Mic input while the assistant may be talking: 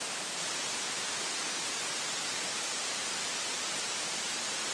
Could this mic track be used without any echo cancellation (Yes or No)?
Yes